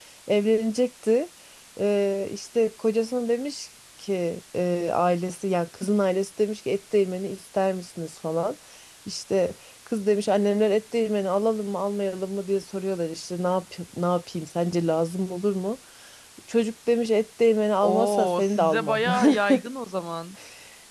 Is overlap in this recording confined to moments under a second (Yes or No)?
No